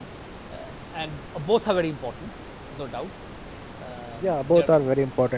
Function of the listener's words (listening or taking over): taking over